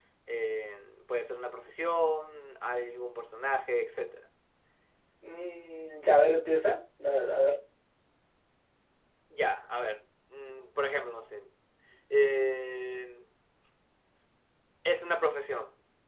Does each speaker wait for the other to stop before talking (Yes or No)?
Yes